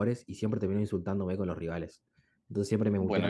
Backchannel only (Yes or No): Yes